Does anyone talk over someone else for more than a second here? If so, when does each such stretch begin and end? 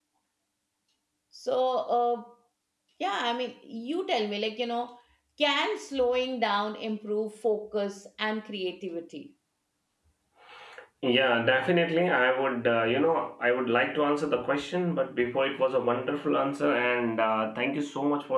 none

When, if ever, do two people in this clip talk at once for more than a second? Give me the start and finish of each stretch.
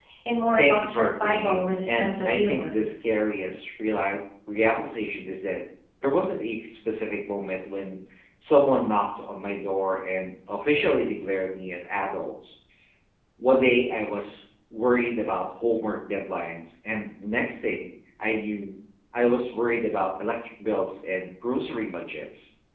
0.5-2.8

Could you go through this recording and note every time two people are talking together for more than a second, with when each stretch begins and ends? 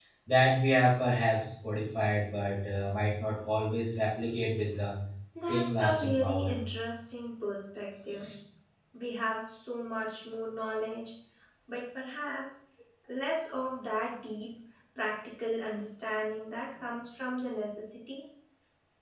5.4-6.6

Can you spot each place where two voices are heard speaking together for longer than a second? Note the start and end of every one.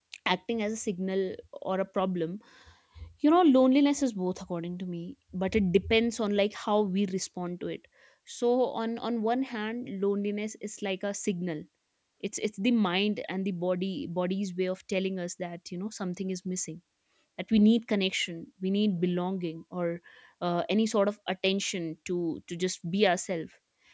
none

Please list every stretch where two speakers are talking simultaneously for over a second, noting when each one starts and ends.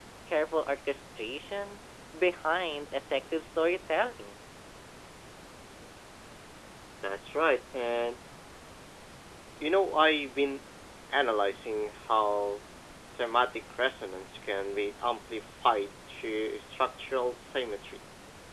none

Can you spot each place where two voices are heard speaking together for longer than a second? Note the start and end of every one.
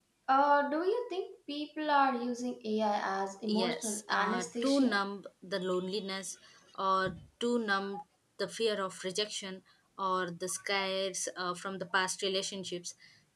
3.6-5.0

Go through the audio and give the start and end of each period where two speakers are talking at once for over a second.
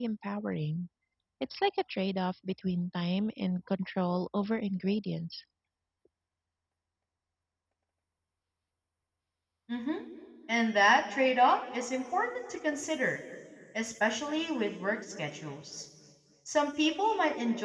none

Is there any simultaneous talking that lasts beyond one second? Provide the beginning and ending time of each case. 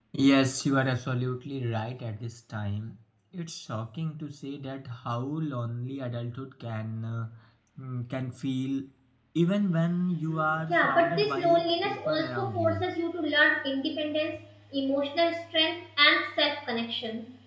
10.7-12.9

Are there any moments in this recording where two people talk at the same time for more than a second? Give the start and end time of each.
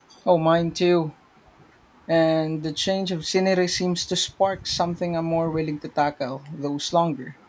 none

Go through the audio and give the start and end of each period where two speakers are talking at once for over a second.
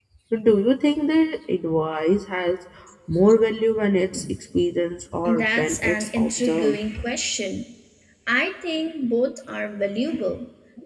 5.4-6.8

